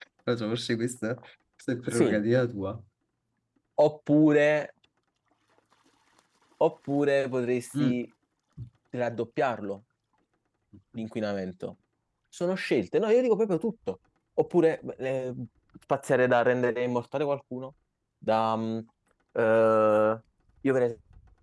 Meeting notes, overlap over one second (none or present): none